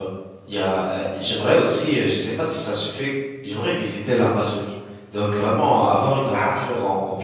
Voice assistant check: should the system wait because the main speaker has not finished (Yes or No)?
Yes